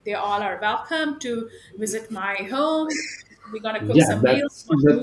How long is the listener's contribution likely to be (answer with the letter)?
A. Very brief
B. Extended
B